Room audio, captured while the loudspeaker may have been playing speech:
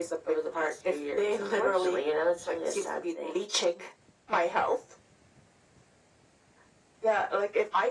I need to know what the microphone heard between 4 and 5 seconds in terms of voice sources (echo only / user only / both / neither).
echo only